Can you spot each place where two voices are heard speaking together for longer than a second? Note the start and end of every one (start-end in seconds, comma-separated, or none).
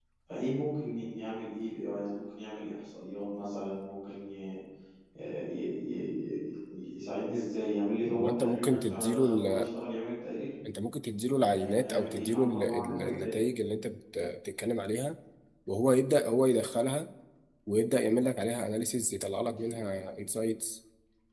8.2-9.7, 11.4-13.4